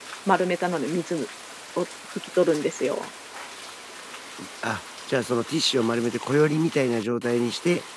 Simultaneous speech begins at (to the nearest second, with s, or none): none